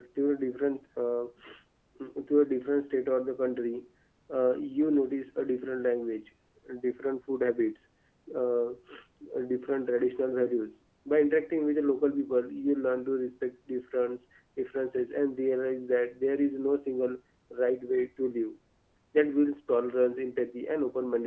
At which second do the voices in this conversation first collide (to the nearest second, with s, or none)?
none